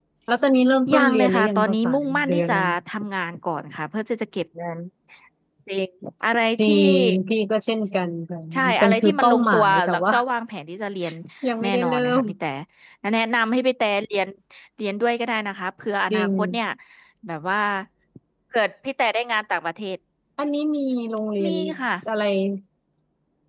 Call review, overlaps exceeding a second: present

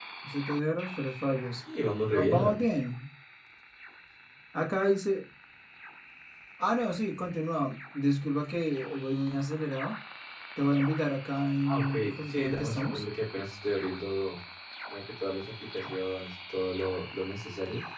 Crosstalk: present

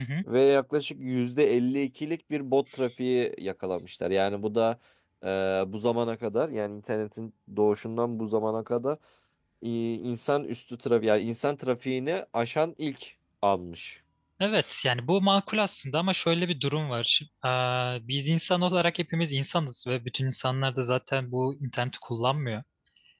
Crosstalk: none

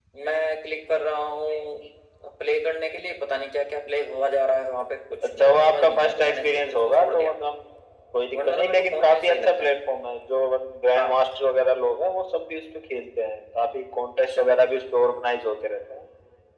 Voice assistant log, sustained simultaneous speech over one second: present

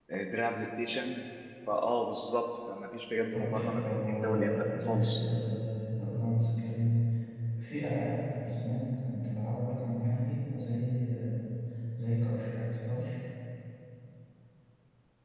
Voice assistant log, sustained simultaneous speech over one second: present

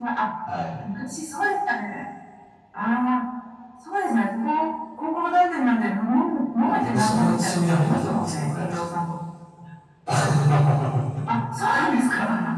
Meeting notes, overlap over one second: present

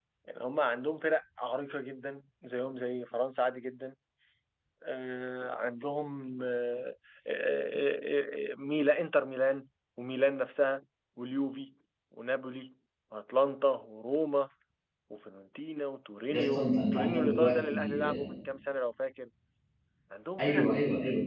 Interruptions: present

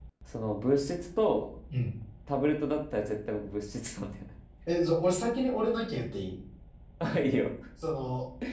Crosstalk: none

